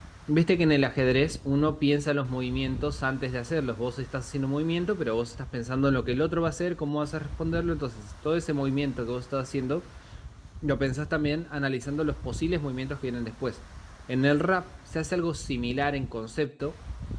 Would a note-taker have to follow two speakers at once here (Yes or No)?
No